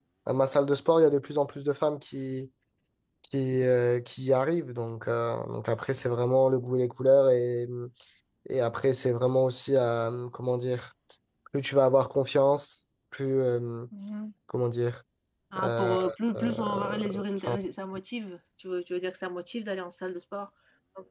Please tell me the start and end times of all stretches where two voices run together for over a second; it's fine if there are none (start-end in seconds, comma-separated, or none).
16.4-17.6